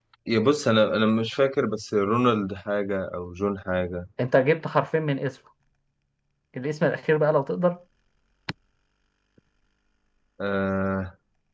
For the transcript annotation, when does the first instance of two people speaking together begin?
none

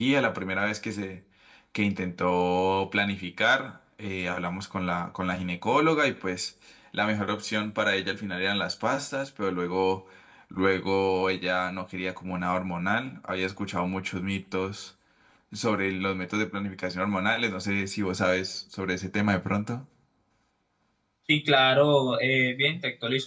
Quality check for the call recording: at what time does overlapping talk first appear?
none

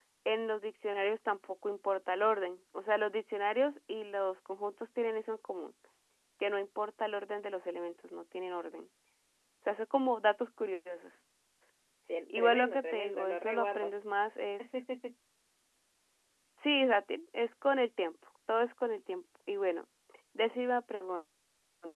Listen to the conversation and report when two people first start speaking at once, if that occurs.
12 s

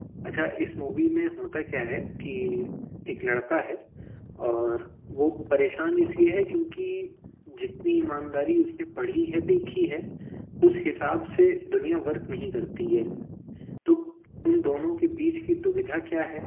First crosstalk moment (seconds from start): none

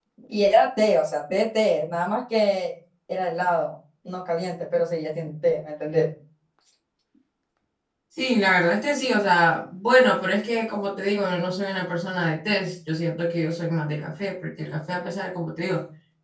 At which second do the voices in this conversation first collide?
none

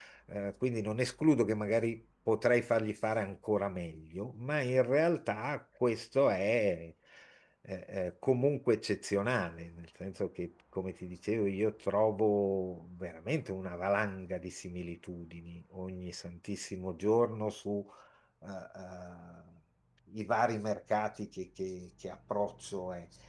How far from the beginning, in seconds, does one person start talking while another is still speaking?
none

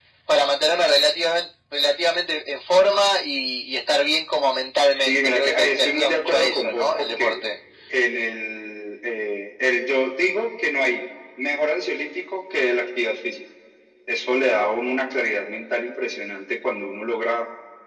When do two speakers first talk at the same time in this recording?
5 s

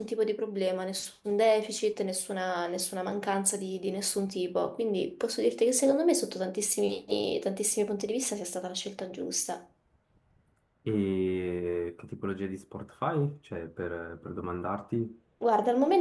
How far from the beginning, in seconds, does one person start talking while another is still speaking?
none

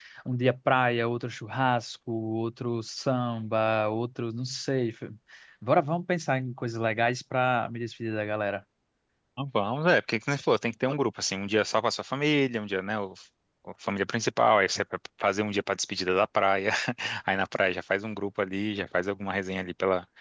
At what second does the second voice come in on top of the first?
none

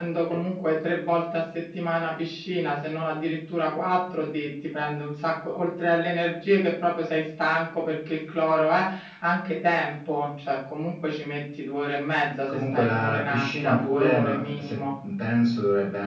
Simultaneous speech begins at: 12 s

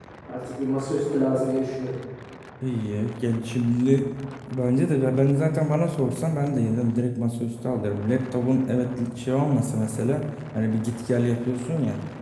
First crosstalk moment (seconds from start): none

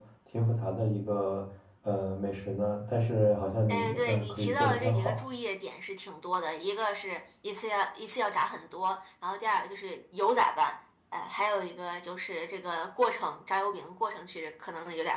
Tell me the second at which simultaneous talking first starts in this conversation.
4 s

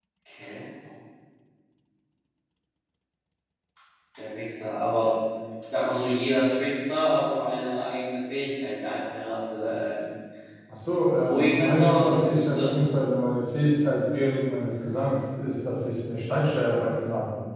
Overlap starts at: 11 s

